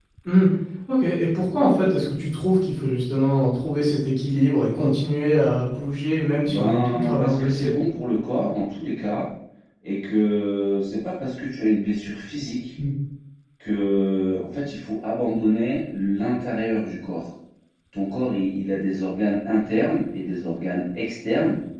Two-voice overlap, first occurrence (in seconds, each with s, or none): 6.4 s